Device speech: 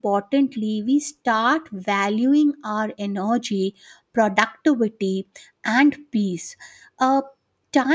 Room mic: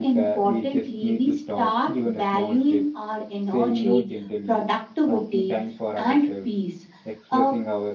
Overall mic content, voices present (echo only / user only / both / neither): both